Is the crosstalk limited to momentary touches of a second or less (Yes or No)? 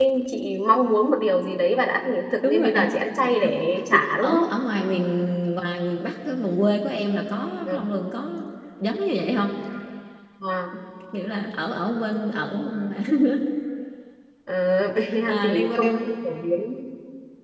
No